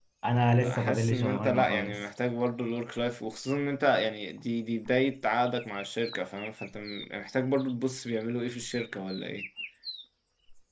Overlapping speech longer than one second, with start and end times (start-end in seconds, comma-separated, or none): 0.5-2.0